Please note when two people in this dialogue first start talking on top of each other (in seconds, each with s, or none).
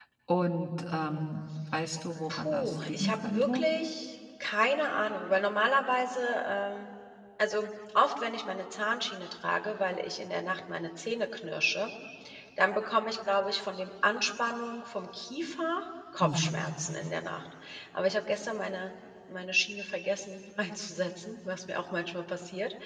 2.3 s